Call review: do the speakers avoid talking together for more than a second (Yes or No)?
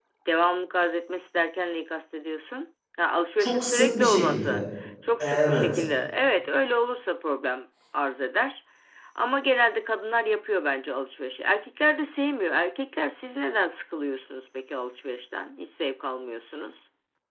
No